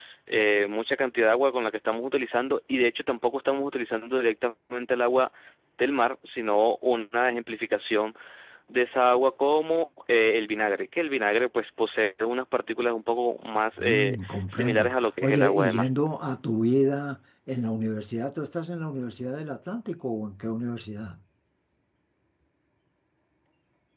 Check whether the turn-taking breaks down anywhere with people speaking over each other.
Yes, from 13.8 s

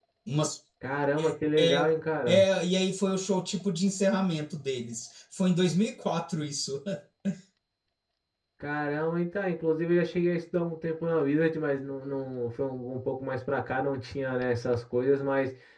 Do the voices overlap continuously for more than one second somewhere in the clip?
No

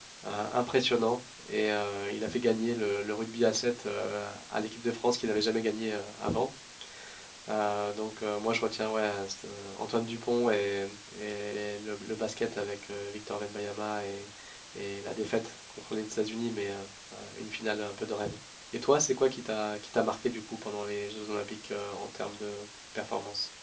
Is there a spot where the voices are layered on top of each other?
No

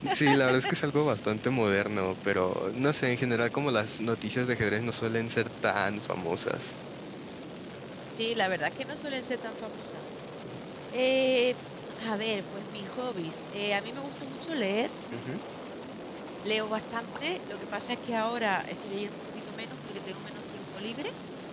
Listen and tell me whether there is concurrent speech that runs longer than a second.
No

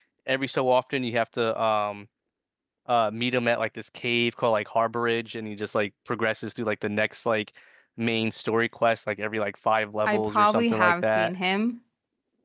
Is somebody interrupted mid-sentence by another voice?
Yes, from 10.1 s

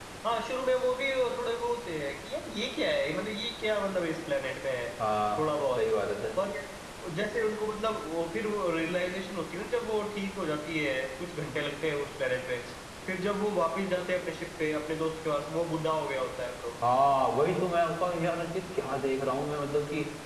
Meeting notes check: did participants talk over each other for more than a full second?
No

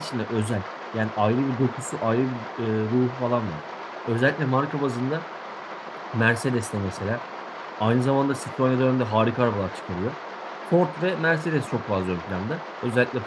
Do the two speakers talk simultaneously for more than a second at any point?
No

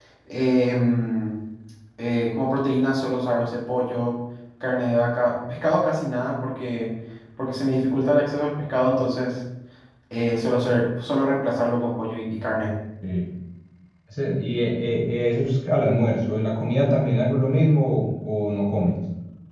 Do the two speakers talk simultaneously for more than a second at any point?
No

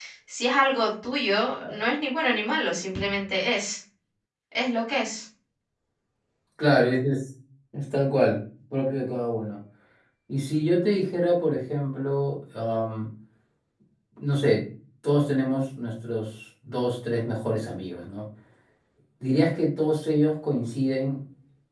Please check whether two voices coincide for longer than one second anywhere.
No

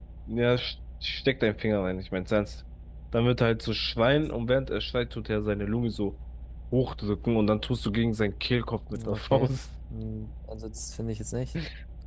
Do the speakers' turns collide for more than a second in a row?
No

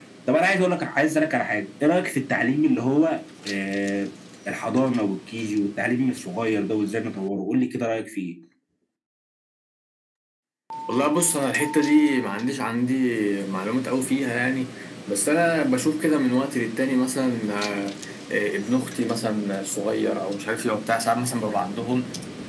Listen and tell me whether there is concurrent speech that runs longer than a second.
No

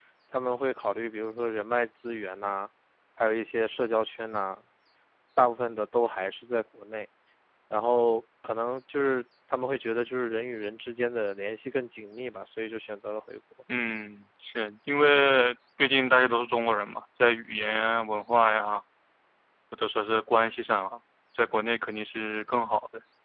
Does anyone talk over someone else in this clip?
No

